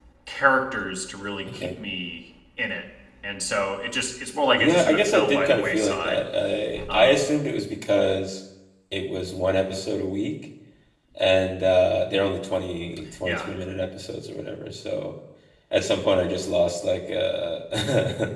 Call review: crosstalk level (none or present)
present